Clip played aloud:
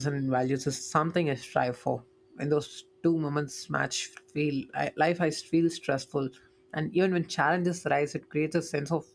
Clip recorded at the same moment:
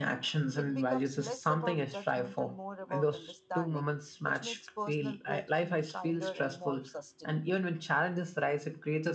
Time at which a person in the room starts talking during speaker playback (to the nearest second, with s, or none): 1 s